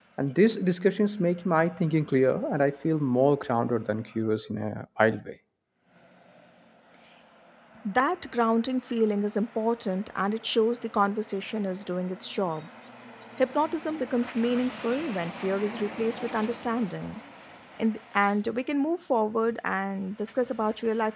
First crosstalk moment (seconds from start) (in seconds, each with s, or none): none